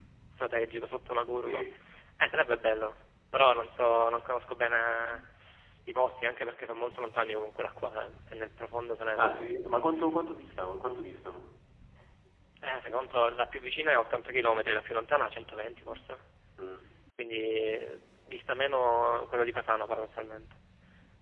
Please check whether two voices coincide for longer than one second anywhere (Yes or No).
No